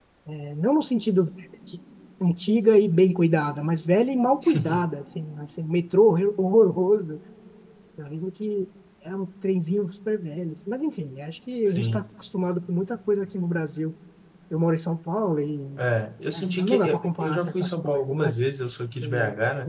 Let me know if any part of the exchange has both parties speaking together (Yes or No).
Yes